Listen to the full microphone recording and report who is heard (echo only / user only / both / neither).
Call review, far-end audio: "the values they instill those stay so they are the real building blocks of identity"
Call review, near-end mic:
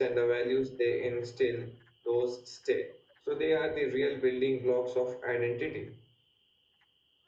echo only